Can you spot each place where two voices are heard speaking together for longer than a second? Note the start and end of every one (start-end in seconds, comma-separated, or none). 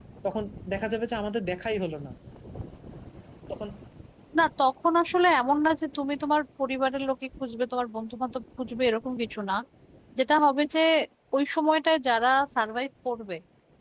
none